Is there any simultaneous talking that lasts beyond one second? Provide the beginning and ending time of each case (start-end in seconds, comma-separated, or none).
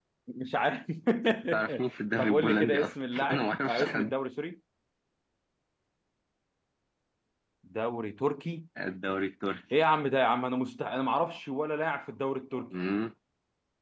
2.2-4.1